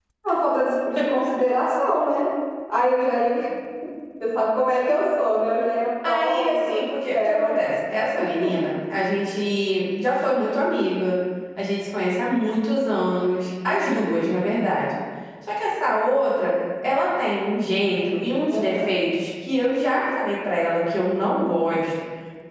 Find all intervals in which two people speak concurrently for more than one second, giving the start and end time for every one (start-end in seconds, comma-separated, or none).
6.0-7.6